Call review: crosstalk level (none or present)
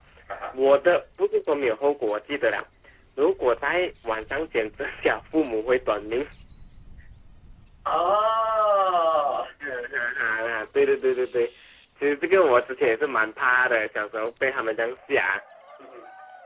none